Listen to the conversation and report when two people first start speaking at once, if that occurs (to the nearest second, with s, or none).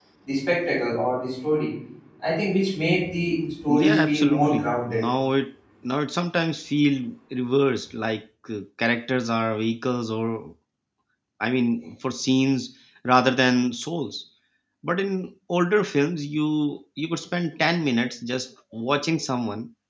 4 s